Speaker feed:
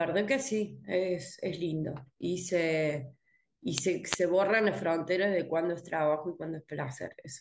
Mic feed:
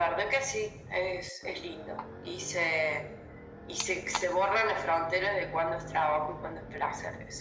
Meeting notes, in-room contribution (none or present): none